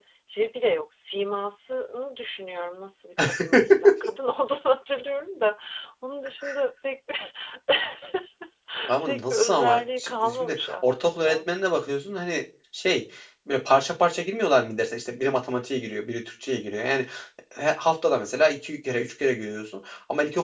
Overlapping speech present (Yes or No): Yes